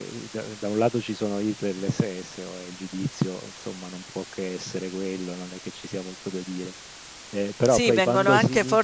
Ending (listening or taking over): taking over